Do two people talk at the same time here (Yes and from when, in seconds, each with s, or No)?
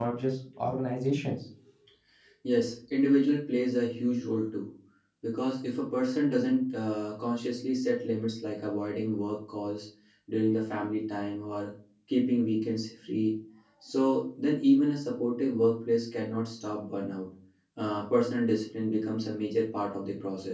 No